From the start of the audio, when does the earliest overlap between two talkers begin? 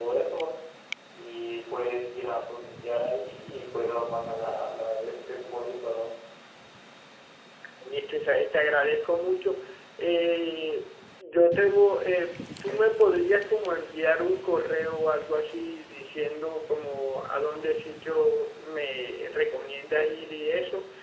none

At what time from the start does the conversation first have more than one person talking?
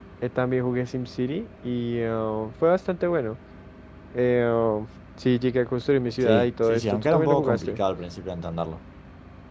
6.2 s

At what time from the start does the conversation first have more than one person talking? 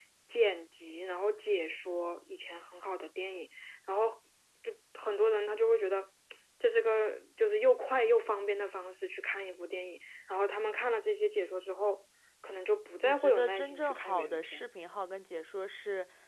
13.0 s

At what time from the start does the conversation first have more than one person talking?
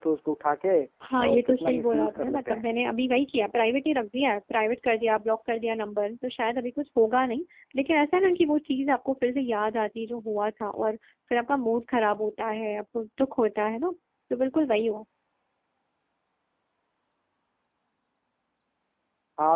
1.2 s

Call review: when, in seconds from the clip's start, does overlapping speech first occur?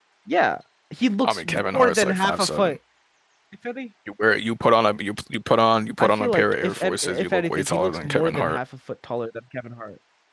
1.2 s

